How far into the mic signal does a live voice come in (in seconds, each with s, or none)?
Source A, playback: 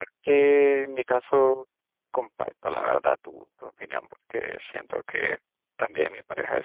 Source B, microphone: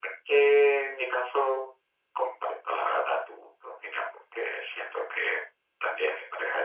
none